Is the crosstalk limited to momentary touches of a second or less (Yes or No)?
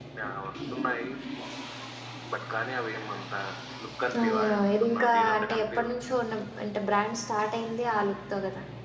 No